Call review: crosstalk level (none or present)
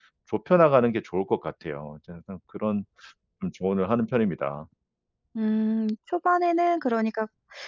none